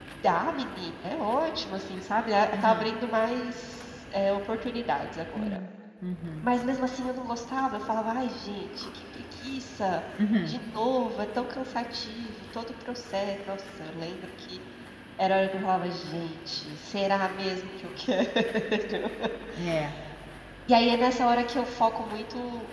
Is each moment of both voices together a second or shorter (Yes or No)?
Yes